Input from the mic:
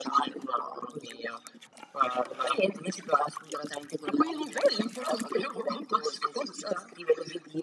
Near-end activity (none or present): none